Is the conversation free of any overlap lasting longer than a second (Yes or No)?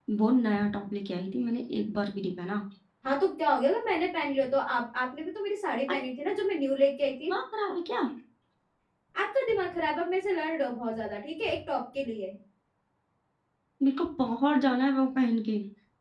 Yes